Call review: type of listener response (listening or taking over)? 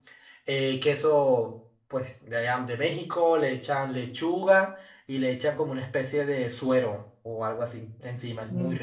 taking over